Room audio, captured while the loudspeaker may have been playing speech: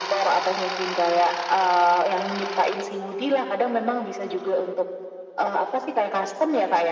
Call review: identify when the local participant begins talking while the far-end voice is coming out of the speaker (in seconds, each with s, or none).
none